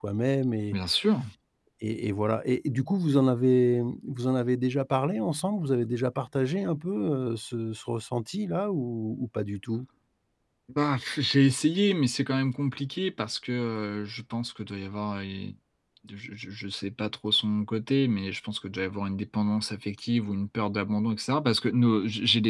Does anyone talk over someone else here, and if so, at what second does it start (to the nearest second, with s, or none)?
none